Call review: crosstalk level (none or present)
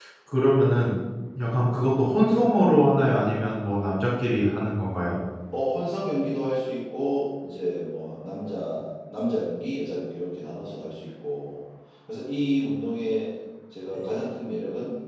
none